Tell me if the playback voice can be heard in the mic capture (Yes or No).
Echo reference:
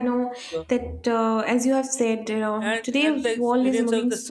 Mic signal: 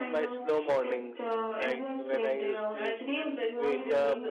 Yes